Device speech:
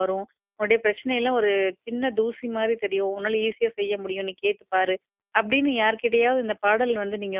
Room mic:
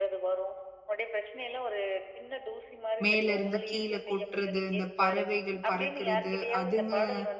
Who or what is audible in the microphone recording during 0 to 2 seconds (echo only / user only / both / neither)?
echo only